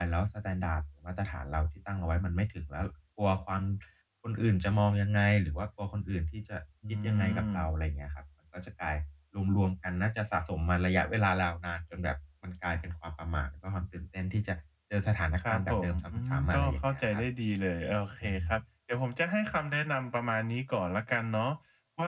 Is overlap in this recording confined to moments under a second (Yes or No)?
No